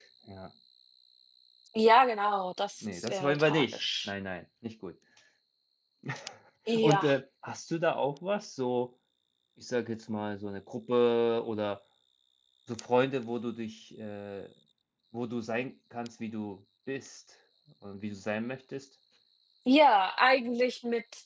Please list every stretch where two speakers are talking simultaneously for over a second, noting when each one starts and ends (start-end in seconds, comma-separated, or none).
2.8-4.1